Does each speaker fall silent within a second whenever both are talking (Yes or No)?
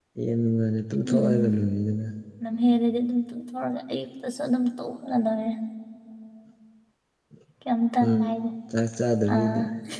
Yes